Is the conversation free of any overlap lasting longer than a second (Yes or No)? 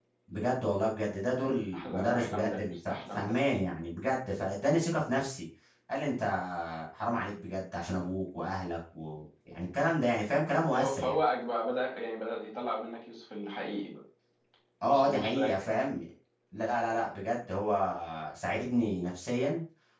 No